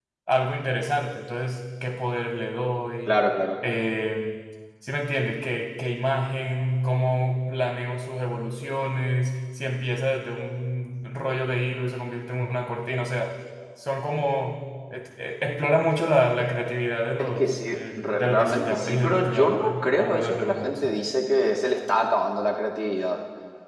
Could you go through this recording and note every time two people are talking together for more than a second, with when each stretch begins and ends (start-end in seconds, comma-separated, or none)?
17.2-20.9